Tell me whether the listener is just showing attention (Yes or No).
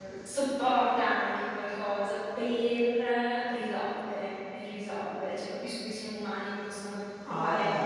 No